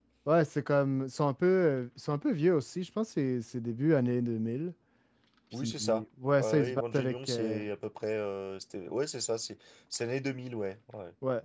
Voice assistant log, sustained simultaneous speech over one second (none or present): present